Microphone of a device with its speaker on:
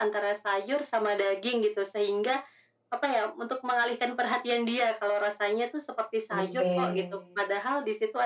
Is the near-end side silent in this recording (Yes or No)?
No